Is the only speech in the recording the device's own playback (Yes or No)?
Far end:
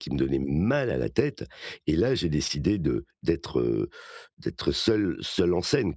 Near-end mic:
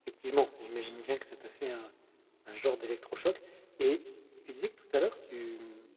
No